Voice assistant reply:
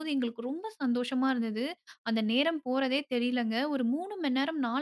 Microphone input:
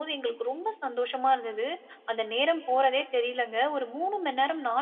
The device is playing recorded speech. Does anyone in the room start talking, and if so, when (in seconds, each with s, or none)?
none